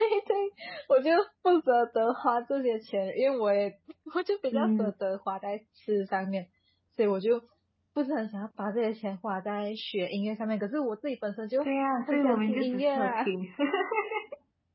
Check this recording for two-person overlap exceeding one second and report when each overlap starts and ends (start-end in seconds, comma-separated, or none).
12.1-13.3